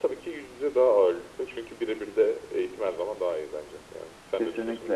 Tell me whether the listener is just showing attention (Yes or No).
No